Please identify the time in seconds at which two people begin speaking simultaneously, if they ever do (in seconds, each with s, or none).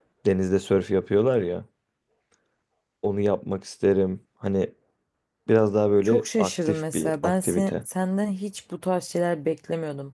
6.0 s